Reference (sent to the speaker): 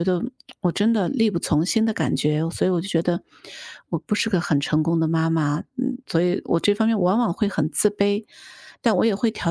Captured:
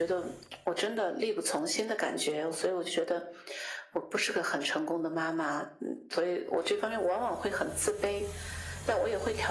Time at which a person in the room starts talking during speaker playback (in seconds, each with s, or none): none